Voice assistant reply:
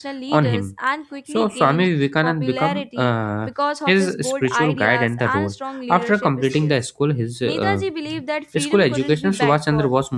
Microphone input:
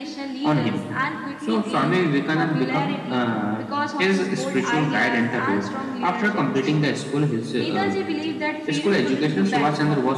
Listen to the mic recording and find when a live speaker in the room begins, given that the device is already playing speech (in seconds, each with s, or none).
none